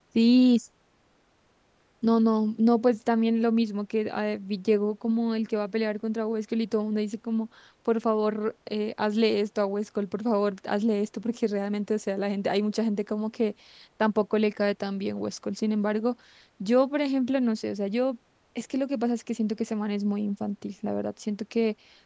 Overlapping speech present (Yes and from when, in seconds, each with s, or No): No